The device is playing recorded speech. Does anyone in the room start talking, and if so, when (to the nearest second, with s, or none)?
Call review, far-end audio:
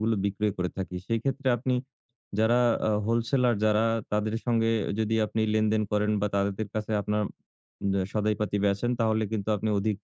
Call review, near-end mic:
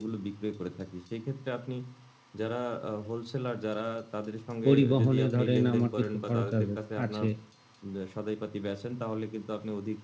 5 s